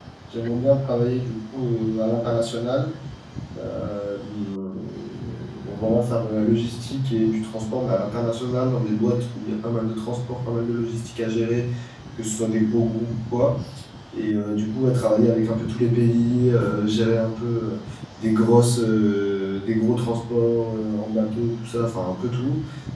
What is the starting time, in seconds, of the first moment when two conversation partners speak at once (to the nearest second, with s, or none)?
none